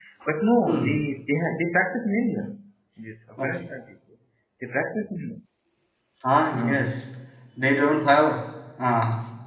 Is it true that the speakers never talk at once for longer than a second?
Yes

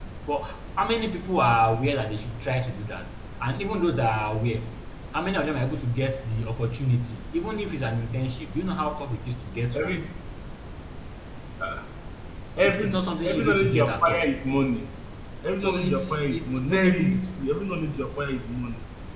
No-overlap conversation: No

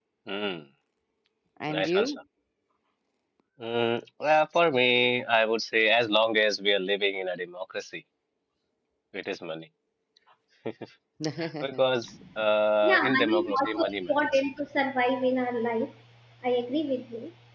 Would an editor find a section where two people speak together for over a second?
Yes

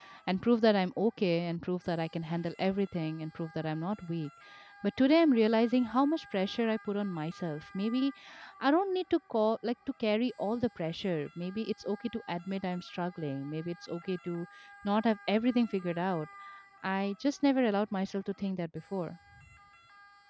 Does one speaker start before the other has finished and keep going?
No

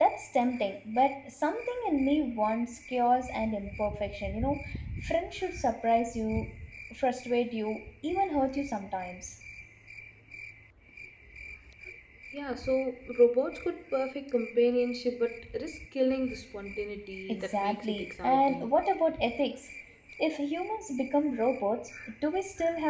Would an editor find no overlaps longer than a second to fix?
No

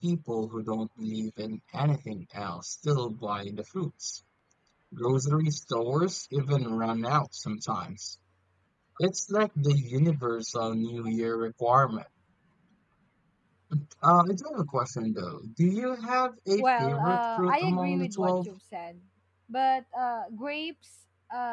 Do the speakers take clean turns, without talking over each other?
No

